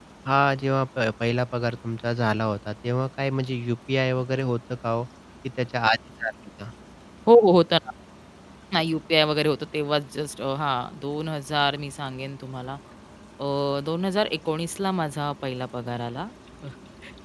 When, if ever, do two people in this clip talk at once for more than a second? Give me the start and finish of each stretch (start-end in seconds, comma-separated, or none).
none